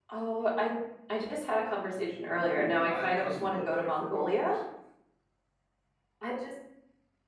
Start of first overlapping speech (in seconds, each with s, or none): 2.3 s